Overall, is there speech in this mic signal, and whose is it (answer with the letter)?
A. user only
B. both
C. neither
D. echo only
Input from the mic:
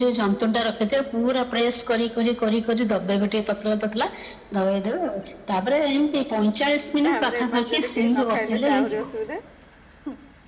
B